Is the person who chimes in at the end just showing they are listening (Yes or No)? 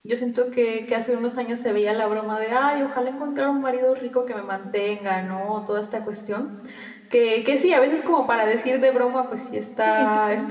Yes